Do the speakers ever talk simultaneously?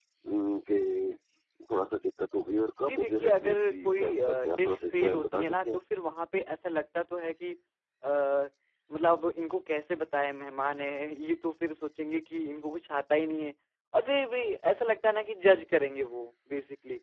Yes, from 2.9 s

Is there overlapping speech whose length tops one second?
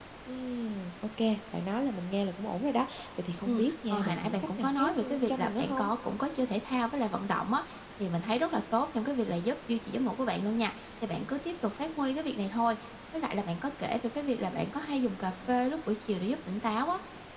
Yes, from 3.5 s

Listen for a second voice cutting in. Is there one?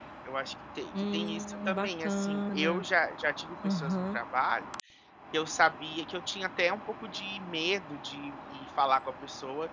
Yes, from 1.1 s

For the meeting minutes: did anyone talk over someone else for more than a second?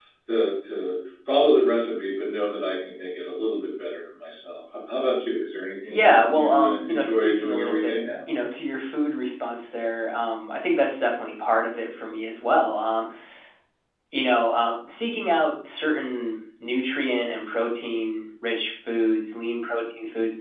Yes, from 5.9 s

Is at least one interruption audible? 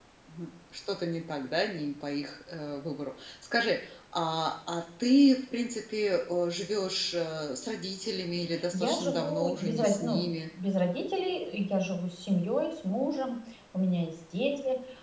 Yes, from 8.7 s

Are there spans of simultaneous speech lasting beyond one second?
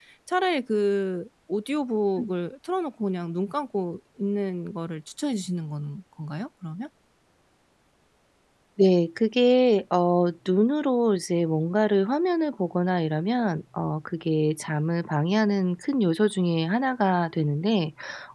No

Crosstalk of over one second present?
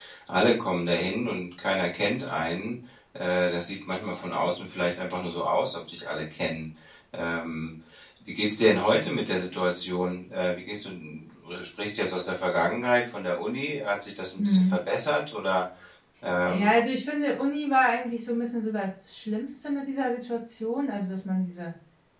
No

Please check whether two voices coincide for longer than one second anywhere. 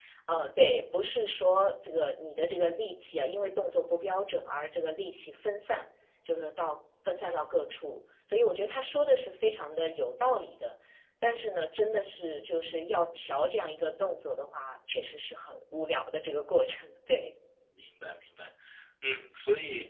No

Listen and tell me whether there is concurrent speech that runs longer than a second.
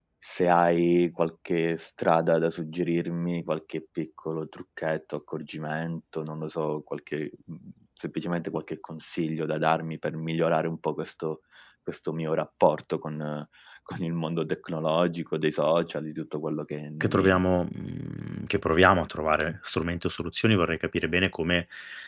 No

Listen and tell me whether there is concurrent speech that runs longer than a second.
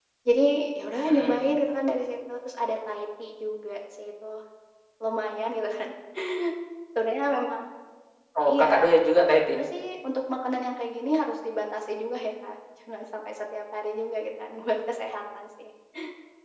No

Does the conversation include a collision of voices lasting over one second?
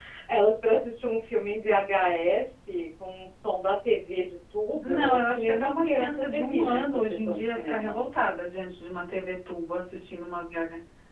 Yes, from 4.8 s

